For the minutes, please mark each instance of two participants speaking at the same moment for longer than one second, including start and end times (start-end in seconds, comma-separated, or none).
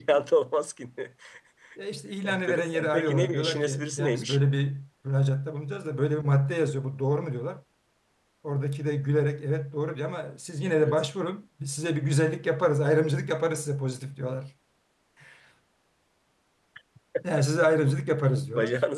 2.2-4.4